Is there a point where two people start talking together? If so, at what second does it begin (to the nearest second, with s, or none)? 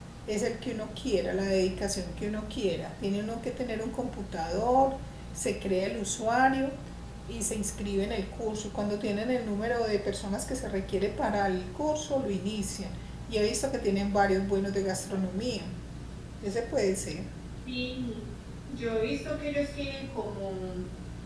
none